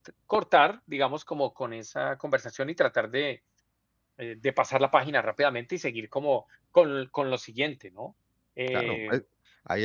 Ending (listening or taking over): taking over